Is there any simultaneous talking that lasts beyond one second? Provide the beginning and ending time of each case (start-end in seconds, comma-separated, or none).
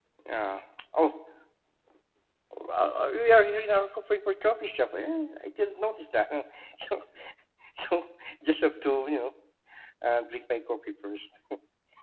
none